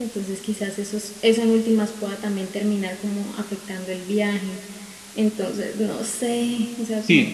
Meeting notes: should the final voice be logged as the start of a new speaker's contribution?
Yes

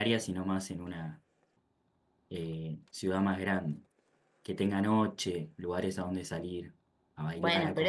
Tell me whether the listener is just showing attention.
No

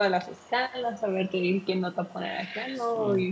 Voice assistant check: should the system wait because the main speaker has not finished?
Yes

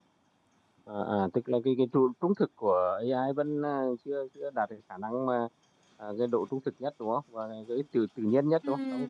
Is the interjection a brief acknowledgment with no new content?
No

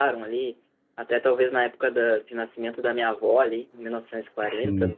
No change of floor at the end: Yes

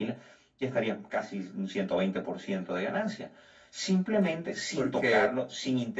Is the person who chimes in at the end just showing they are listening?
Yes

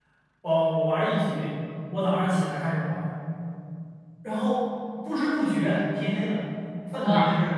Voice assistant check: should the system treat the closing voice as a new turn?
Yes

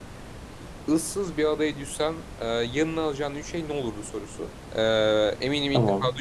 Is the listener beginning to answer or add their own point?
No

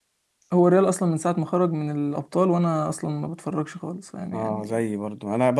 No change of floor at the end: No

